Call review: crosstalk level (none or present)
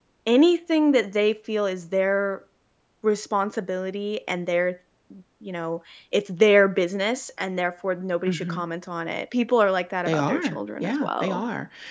present